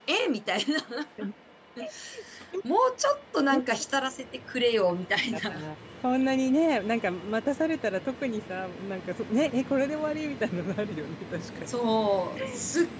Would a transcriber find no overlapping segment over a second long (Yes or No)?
Yes